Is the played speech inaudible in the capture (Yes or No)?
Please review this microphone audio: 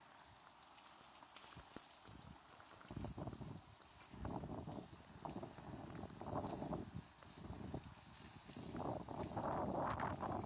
Yes